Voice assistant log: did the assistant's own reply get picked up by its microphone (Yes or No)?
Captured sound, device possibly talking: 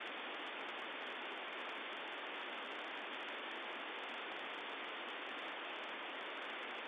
No